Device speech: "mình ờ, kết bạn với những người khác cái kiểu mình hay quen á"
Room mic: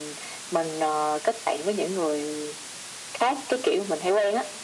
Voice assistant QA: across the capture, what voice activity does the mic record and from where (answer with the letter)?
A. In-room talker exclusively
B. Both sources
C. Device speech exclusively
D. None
C